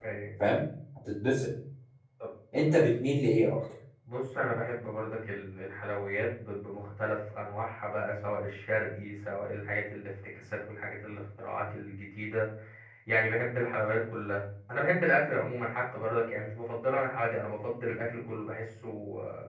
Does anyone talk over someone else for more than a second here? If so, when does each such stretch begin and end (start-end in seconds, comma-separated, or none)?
none